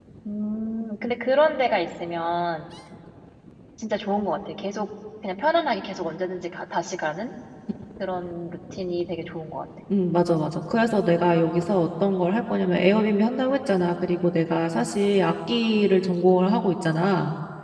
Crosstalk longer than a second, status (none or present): none